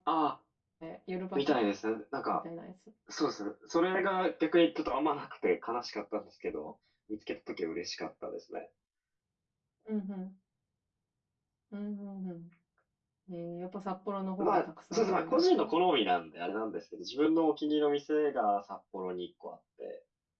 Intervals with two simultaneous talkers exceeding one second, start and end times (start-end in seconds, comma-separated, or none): 14.4-15.7